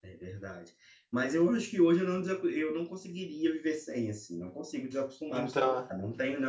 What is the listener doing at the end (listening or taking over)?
listening